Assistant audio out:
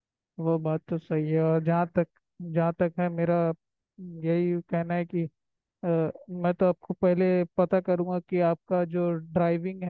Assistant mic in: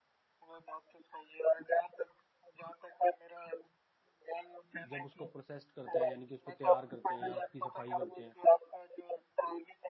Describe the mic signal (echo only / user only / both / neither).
both